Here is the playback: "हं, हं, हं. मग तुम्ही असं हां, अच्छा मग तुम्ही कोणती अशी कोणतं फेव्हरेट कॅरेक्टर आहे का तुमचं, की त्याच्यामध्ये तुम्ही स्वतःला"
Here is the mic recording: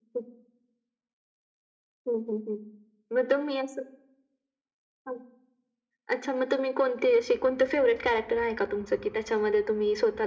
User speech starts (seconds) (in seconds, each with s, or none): none